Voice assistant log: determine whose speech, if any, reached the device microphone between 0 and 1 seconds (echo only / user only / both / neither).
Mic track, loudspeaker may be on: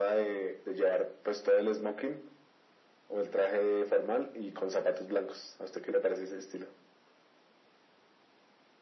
echo only